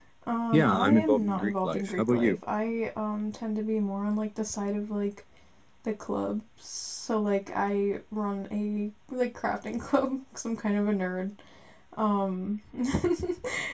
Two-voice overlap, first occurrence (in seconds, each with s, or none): 0.5 s